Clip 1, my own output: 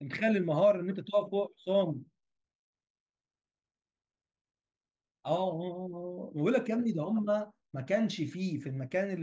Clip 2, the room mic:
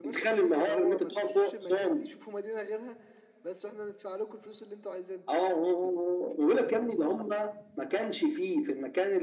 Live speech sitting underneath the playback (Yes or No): Yes